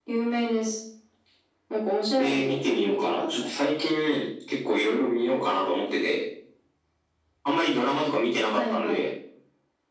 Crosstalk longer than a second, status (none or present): present